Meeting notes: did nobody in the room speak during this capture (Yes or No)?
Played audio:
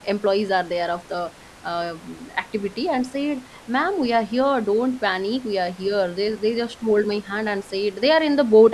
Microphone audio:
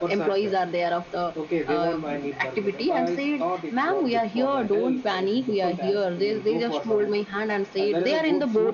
No